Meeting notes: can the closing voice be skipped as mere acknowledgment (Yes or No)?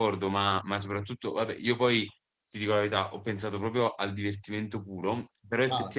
Yes